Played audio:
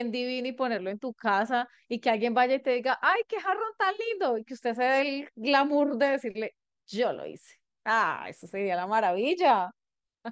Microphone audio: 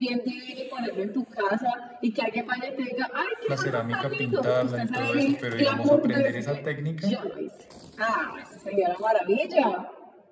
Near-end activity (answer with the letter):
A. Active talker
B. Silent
A